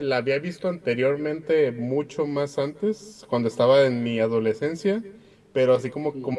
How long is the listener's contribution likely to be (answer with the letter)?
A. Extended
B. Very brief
B